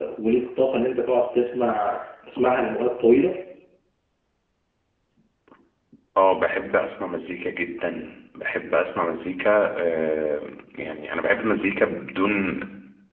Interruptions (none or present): none